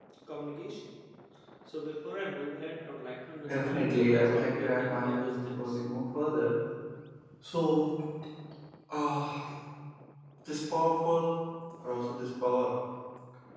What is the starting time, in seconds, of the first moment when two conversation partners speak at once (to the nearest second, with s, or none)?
3 s